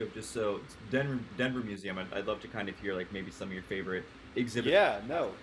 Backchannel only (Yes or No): No